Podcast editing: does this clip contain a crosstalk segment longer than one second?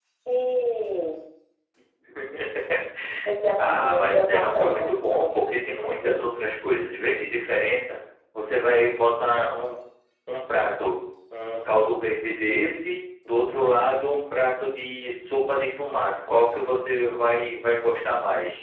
Yes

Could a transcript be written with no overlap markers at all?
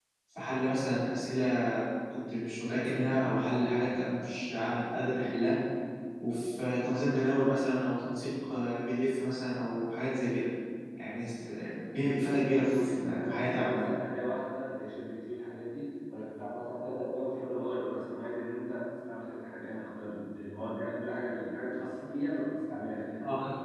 No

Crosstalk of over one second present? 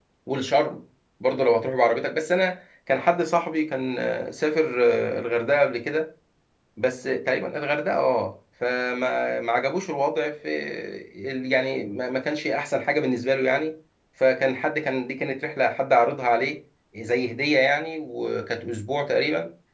No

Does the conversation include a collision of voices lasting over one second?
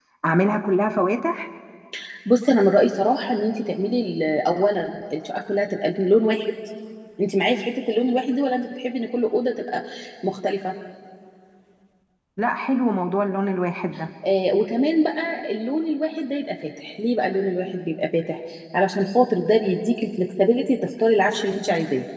No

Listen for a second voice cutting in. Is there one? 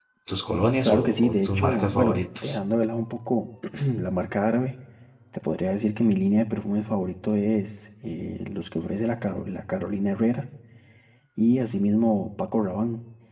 Yes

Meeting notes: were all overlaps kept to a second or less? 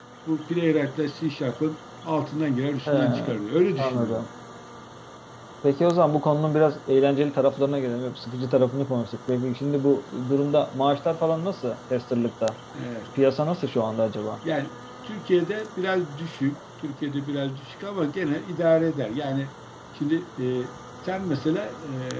Yes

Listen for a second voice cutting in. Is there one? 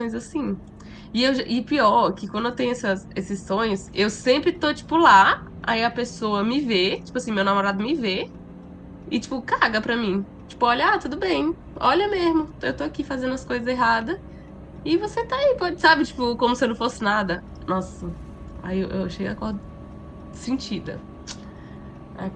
No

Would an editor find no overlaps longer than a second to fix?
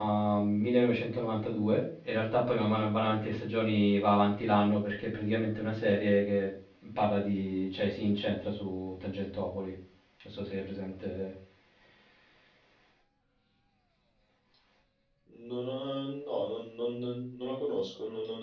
Yes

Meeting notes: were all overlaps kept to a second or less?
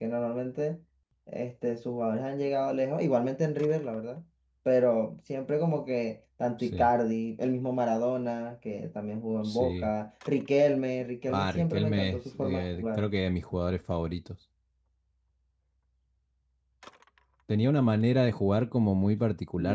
No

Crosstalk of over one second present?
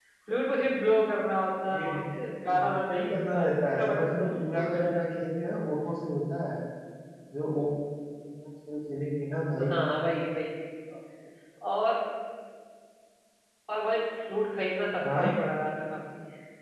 Yes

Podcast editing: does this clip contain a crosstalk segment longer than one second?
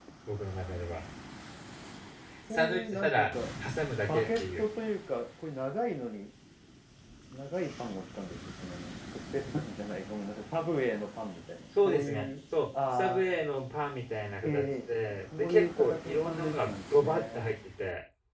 Yes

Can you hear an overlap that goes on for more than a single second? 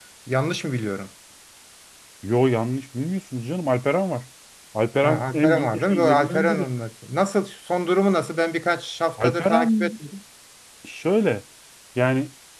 Yes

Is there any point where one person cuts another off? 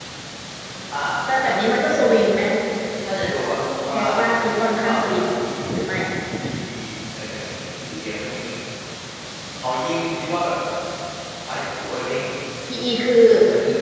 Yes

